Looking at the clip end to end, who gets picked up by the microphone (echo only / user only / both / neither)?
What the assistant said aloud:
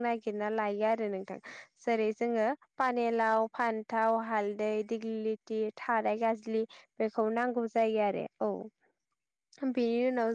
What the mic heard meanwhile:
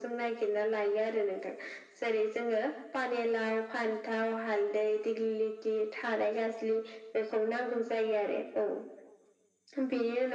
echo only